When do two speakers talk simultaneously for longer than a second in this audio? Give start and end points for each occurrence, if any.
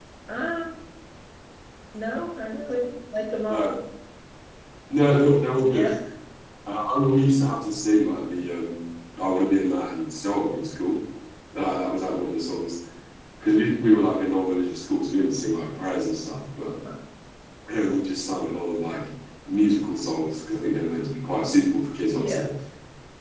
none

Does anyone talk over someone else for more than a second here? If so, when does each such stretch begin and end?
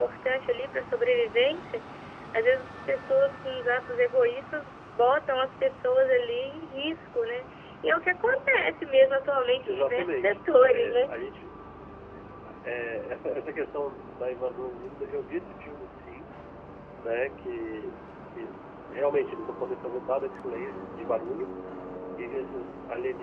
9.7-11.0

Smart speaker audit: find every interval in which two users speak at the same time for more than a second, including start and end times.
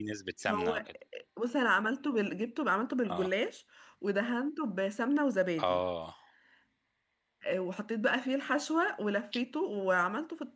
none

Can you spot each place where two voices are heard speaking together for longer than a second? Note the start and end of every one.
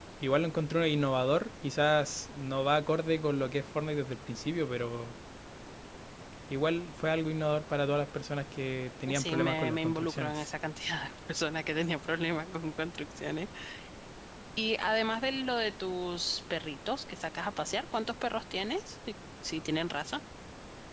9.1-10.5

